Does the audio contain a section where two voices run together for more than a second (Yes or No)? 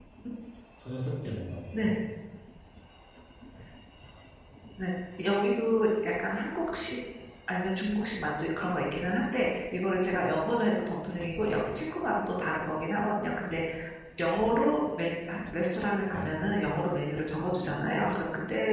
No